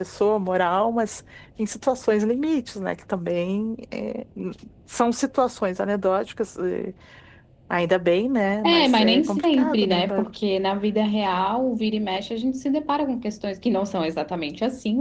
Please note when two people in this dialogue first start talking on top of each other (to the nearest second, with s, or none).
9 s